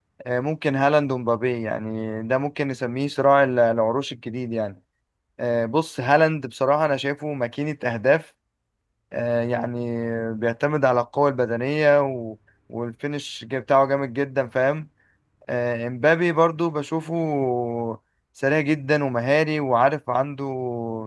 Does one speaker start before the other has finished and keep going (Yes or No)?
No